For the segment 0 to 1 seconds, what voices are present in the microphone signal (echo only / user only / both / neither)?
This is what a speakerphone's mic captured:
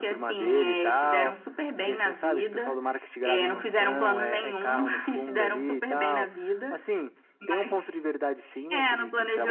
echo only